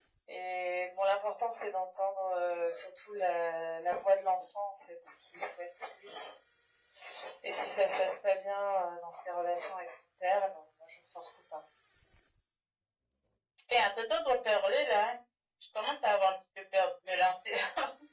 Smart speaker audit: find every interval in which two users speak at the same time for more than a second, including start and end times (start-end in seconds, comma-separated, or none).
none